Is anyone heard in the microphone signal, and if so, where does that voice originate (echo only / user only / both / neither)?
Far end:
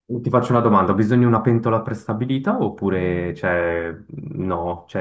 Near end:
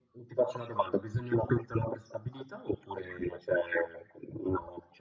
echo only